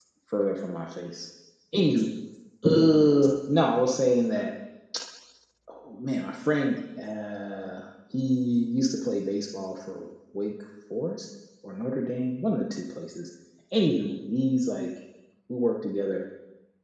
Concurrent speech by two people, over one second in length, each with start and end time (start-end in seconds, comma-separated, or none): none